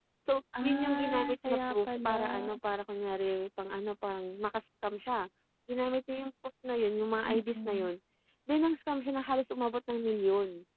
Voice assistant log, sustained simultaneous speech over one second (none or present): present